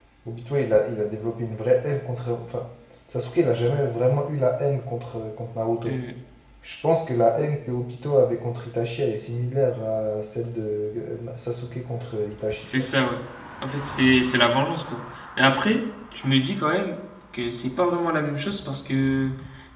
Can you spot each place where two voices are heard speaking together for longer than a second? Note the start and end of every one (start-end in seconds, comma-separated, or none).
none